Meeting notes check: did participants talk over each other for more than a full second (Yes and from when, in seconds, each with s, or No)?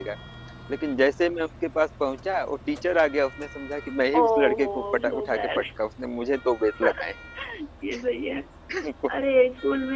Yes, from 4.1 s